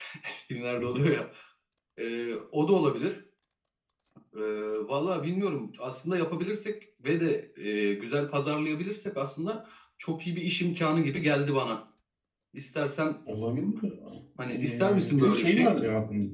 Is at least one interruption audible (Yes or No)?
Yes